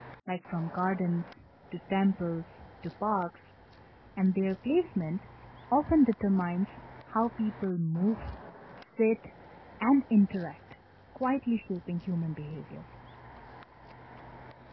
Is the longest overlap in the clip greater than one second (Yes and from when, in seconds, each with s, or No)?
No